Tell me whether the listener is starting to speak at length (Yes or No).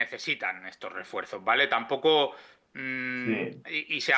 No